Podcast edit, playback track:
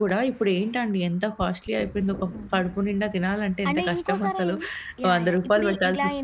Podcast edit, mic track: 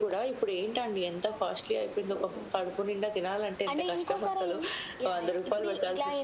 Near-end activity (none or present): none